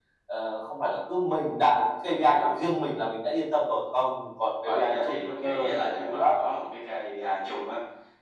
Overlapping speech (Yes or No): Yes